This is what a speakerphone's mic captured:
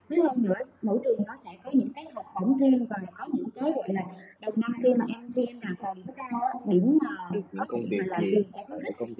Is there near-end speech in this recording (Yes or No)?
Yes